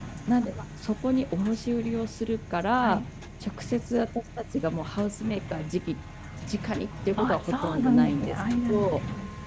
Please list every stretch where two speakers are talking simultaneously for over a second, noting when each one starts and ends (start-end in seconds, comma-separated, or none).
7.2-8.9